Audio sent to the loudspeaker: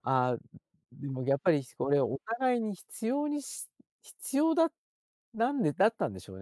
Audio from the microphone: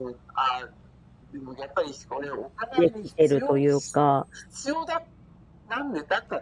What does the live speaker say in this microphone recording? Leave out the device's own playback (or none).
できてるというか、